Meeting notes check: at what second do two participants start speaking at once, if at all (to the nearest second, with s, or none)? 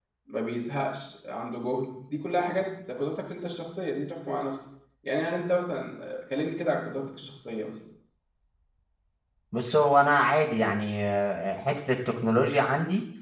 none